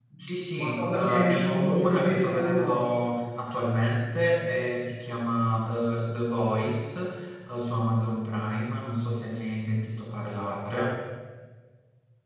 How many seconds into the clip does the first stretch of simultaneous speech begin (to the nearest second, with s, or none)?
1 s